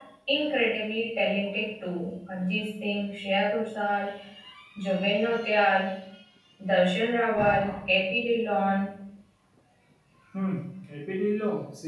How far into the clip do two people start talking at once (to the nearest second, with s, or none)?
none